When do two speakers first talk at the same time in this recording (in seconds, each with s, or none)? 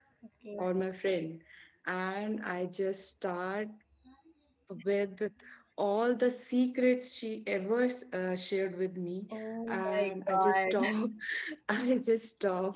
9.3 s